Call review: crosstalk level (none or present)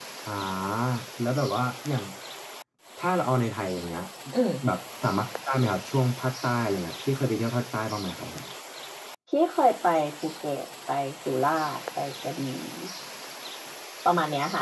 none